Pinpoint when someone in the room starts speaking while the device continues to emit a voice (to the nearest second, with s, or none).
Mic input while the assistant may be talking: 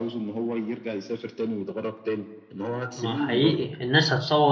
3 s